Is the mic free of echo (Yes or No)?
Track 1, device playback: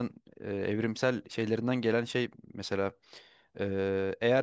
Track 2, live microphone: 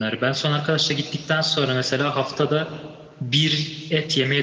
Yes